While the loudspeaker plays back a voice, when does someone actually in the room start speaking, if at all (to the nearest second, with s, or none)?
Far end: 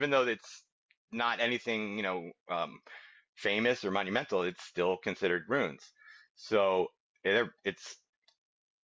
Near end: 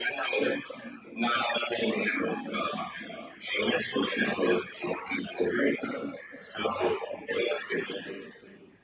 none